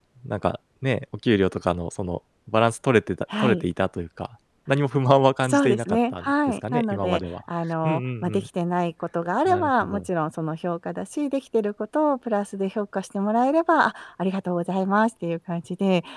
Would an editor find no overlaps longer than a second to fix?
No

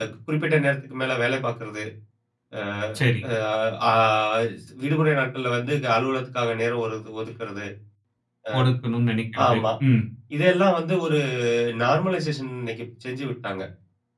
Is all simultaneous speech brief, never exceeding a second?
Yes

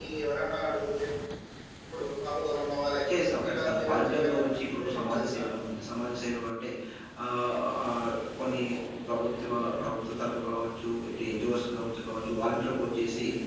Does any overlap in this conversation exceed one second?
Yes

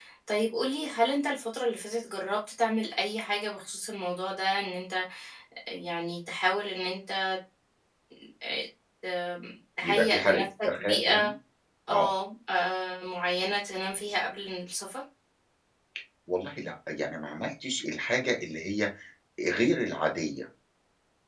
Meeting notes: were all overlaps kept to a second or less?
No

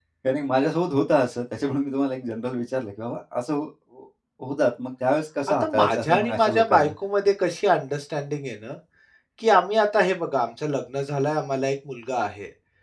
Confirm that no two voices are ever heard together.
No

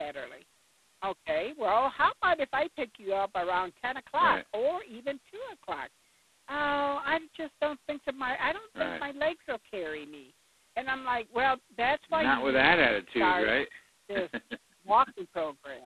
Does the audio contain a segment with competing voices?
Yes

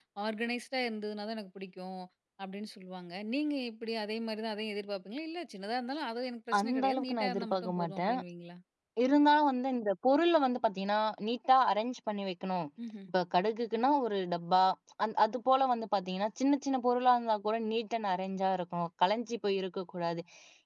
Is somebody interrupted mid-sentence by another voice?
Yes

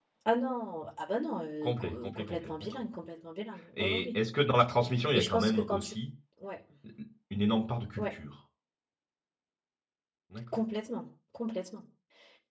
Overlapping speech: Yes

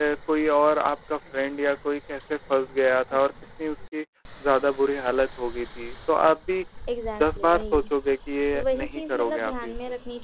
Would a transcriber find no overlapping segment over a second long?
No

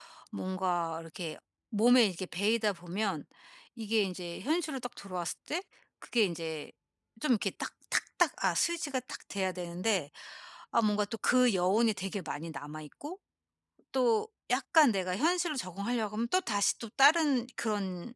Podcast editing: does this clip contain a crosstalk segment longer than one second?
No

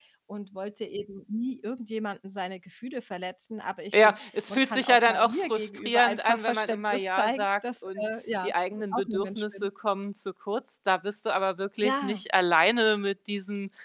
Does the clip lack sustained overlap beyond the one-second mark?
No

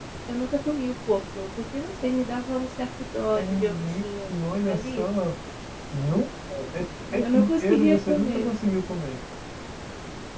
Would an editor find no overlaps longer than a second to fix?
No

